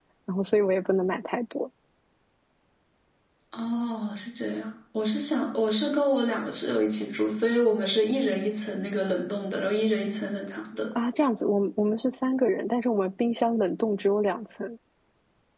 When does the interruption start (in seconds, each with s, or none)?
none